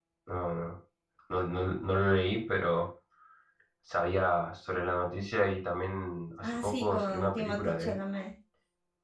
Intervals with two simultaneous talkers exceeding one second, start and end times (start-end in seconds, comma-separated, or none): 6.4-8.0